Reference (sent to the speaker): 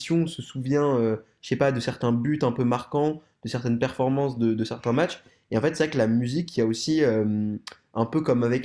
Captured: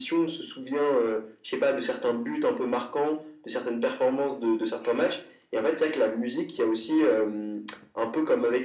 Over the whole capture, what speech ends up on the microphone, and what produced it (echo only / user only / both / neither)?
echo only